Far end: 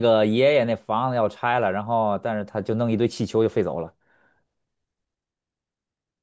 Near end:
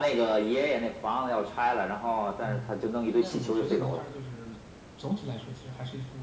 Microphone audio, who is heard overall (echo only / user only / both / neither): both